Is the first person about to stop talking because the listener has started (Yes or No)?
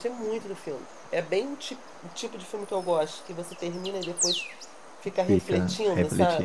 Yes